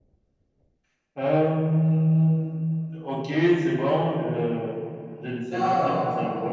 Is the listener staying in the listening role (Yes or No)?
No